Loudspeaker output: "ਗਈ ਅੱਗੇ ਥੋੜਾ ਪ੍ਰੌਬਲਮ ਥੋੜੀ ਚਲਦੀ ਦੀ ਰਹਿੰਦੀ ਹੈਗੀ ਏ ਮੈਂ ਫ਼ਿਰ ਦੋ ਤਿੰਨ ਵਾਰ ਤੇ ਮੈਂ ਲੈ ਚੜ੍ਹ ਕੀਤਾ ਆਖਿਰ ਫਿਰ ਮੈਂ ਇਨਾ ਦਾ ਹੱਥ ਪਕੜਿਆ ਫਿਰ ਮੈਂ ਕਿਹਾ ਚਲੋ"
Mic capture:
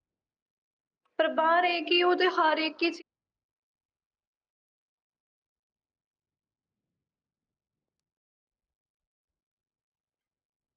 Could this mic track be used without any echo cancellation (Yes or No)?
Yes